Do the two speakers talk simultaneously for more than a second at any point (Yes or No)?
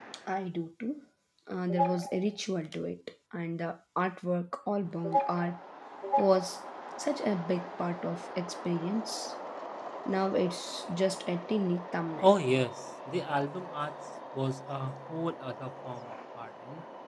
No